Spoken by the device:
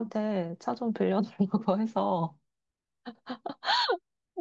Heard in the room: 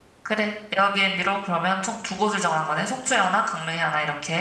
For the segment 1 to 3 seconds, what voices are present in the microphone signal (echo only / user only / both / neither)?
user only